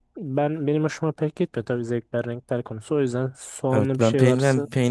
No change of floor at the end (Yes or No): No